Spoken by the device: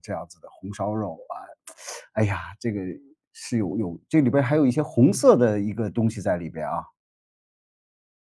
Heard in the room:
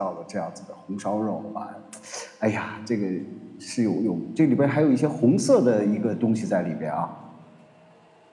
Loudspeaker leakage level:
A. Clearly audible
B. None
A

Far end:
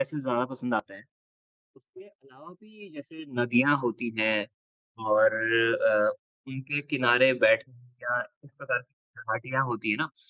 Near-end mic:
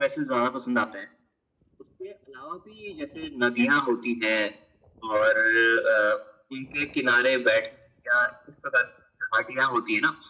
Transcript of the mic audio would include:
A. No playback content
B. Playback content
B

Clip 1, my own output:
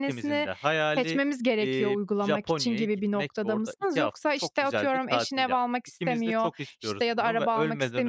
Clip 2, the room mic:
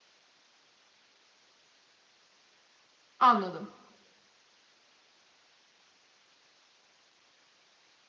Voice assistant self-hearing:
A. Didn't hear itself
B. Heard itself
A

